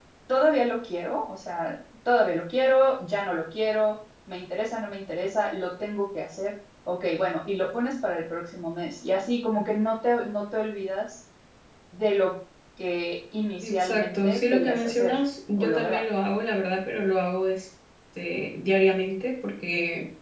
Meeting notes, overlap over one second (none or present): present